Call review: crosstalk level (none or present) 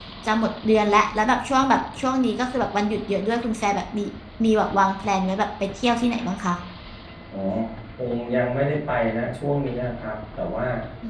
none